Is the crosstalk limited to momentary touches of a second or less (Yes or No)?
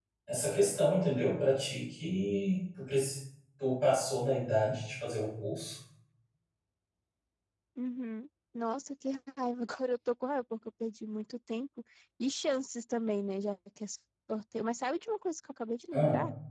Yes